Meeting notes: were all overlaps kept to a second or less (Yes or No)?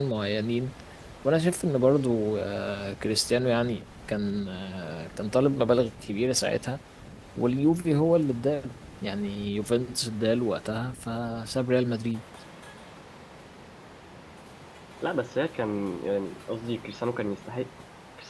Yes